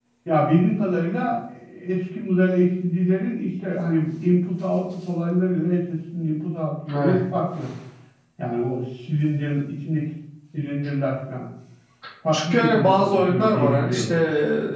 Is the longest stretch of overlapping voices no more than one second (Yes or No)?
No